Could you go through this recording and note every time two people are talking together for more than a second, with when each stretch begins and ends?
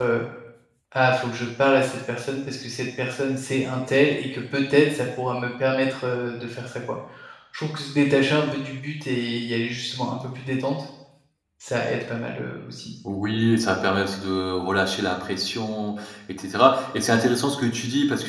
none

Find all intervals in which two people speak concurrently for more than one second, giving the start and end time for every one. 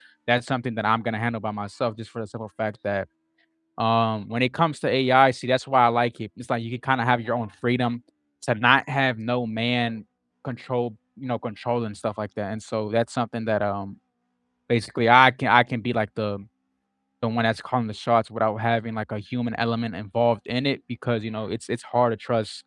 none

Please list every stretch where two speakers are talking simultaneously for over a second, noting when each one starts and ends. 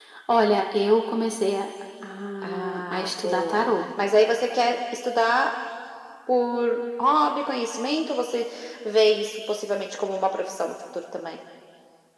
2.4-3.8

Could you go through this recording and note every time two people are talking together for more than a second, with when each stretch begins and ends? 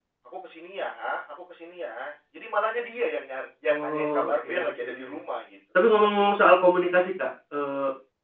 3.7-4.9

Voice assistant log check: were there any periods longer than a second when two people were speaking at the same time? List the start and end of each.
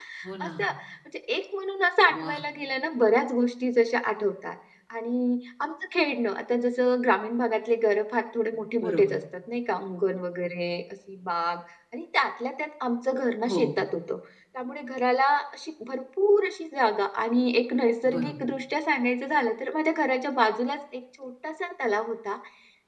none

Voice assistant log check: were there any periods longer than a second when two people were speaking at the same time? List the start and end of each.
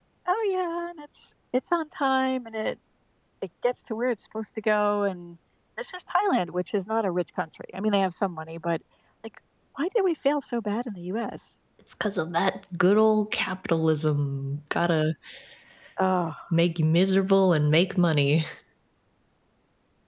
none

